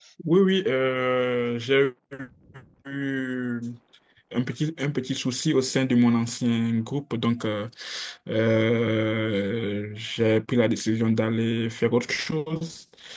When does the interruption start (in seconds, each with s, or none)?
none